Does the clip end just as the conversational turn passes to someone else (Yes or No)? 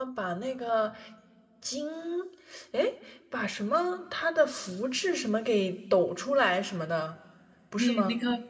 Yes